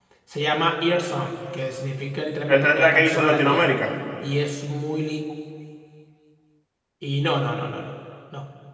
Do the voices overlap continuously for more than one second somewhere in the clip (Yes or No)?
Yes